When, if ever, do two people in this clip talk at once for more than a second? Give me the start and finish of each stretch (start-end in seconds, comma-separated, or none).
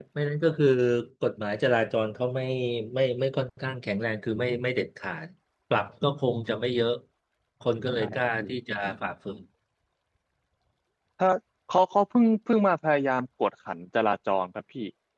none